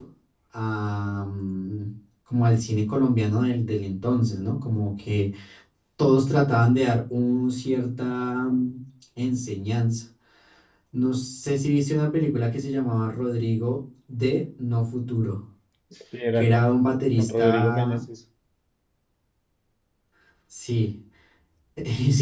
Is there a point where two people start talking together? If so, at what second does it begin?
16.4 s

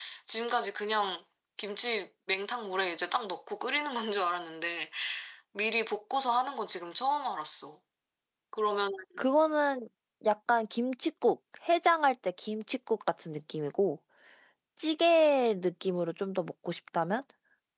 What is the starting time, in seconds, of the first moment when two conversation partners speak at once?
none

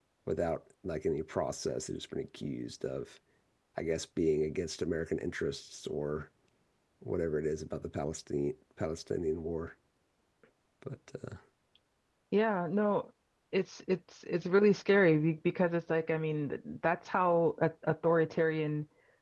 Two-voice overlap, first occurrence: none

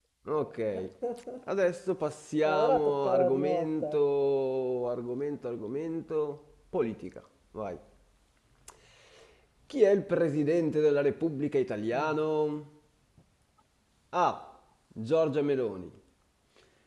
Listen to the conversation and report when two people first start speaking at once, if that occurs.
2.5 s

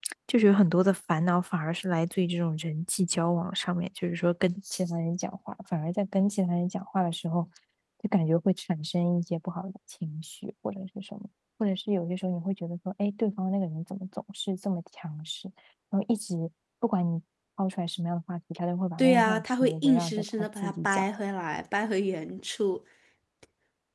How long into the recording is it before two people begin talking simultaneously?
19.0 s

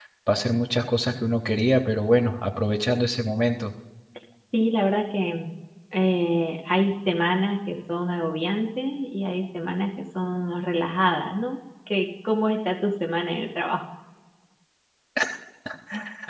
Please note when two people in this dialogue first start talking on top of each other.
none

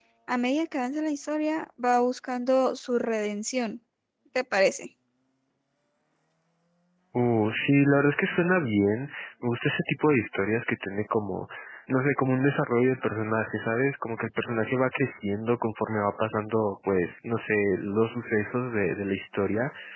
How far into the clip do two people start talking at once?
none

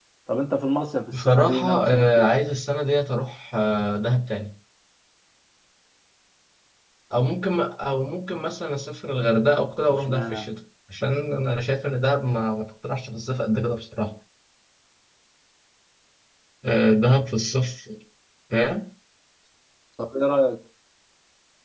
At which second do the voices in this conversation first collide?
1.1 s

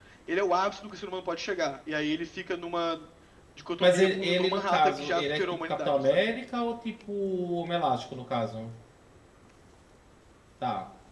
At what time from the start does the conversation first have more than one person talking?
3.8 s

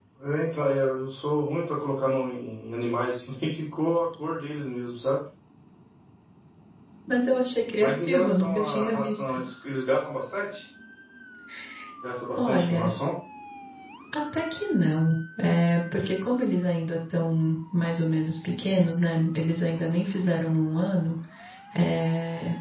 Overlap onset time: 7.8 s

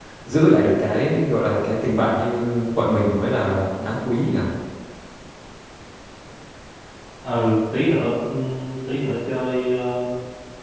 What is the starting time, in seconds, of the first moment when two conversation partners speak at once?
none

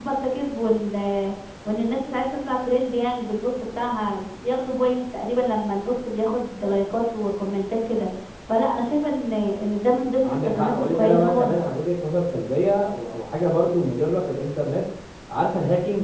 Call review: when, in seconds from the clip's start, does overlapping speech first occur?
10.2 s

